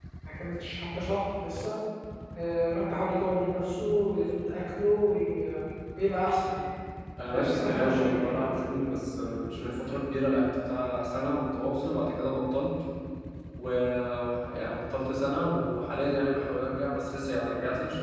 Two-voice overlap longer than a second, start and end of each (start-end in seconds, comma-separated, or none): 7.3-8.6